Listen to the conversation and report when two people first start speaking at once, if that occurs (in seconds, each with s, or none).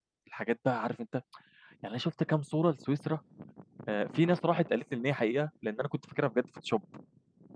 none